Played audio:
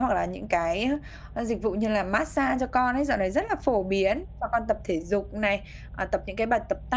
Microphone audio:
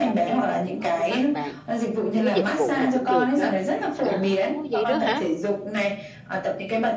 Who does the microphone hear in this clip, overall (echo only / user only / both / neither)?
both